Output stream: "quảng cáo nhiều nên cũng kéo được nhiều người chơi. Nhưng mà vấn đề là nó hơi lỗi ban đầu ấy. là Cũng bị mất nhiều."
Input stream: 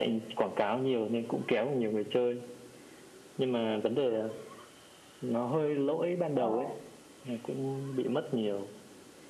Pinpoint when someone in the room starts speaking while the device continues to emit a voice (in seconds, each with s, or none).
6.3 s